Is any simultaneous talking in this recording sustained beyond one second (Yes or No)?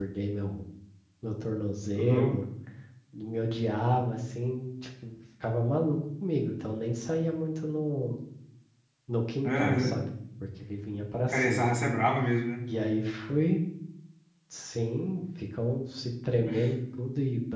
No